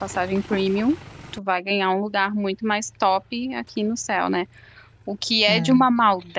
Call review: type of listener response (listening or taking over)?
listening